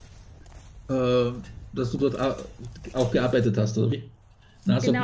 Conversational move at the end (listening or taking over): taking over